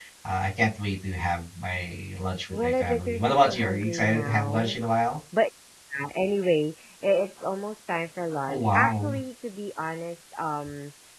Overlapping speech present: Yes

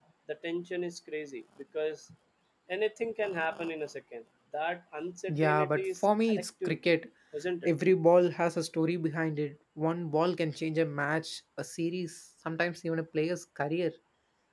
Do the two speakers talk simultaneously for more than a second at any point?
Yes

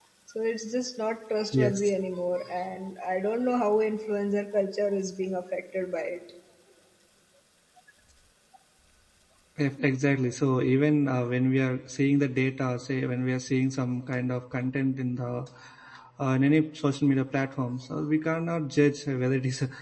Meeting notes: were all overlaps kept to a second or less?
Yes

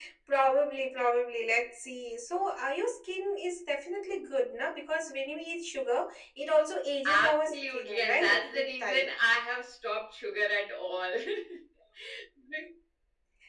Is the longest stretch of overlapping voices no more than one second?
No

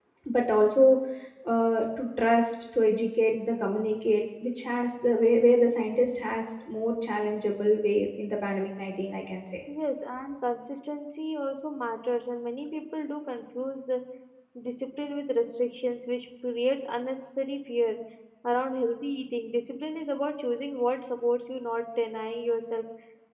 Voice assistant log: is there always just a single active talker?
Yes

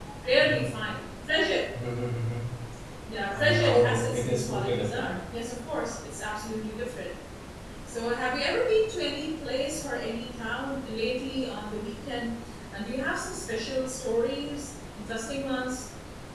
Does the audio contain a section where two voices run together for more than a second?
Yes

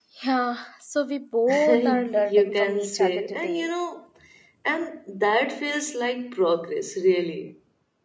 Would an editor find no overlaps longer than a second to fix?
No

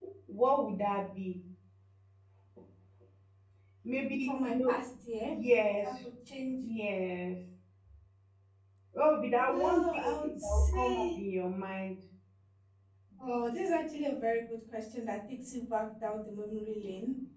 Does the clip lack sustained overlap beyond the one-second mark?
No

